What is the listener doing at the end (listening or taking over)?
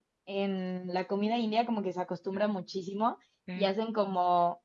listening